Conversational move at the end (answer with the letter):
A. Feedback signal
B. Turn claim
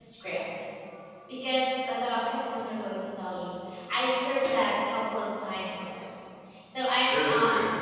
A